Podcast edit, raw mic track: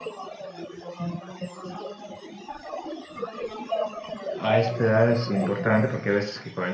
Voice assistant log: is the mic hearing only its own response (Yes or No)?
No